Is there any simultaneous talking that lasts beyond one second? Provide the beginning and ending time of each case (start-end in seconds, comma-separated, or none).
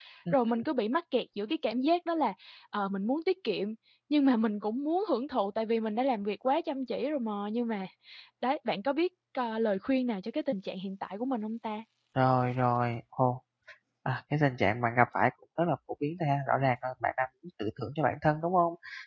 none